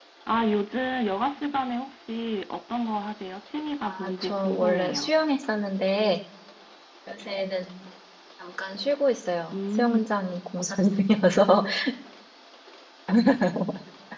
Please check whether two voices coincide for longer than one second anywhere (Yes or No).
Yes